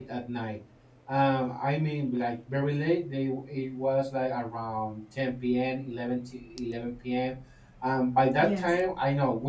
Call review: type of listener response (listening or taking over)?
listening